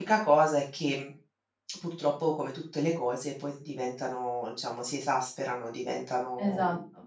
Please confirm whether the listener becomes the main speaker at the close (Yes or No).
Yes